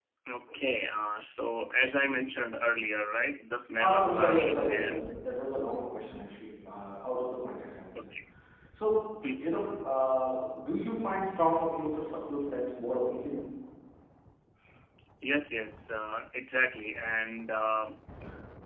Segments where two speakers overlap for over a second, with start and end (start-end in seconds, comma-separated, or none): 3.9-5.1